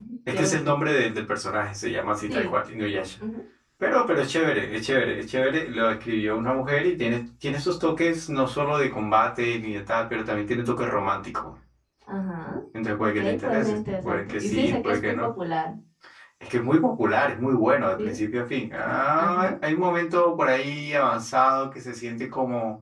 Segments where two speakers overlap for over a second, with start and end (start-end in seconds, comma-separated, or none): 13.2-15.3